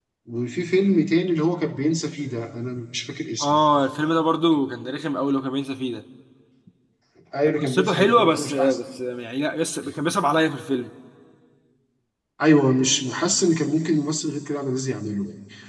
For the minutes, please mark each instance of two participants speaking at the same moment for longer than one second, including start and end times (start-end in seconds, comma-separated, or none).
7.5-8.8